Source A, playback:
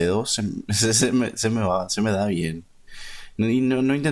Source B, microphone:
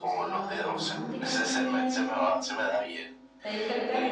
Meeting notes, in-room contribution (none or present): present